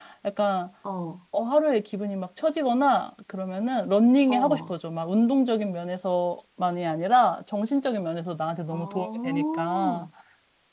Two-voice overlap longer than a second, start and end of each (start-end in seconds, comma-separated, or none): 8.7-10.1